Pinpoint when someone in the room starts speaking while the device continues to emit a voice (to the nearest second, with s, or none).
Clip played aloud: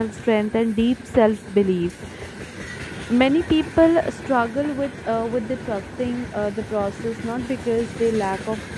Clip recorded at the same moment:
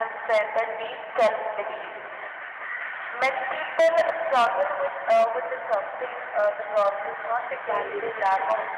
8 s